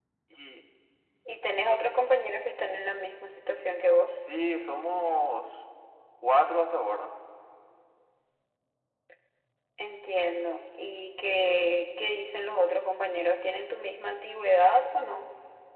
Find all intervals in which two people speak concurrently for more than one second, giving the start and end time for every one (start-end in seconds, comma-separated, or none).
none